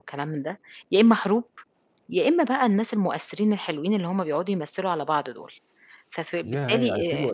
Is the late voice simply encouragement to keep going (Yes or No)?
No